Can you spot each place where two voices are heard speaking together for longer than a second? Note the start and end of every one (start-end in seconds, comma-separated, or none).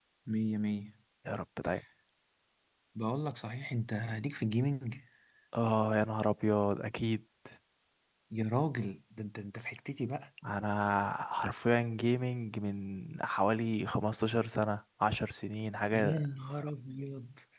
none